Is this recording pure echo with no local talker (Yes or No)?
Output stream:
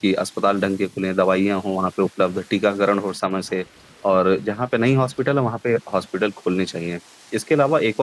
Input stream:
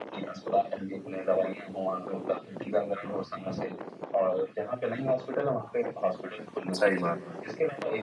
No